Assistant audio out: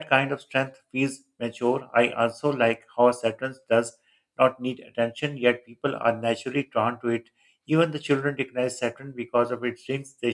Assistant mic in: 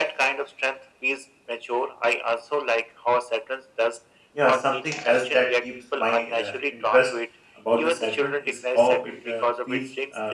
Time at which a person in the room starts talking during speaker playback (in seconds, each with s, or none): 4.3 s